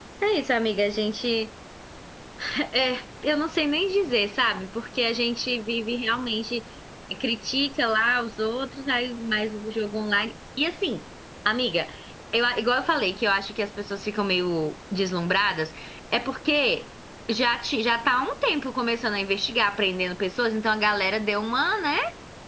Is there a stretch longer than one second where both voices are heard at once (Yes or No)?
No